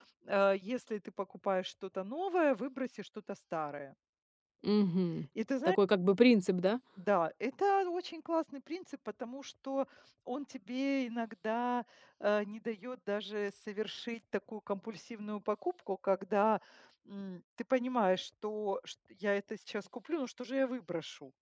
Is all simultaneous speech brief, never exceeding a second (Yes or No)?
Yes